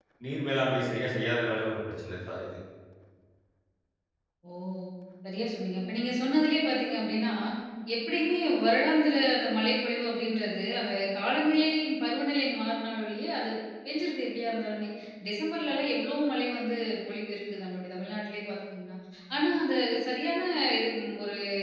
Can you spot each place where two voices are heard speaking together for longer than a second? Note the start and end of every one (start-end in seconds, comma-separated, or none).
none